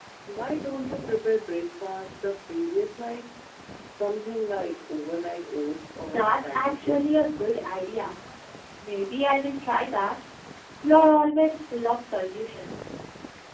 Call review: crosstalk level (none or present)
present